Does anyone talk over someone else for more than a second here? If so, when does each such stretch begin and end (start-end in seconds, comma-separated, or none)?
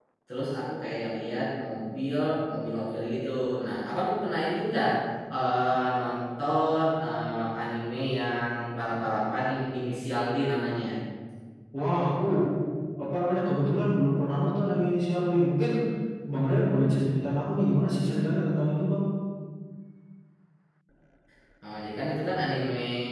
none